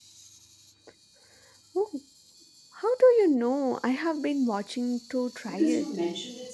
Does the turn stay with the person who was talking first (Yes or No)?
No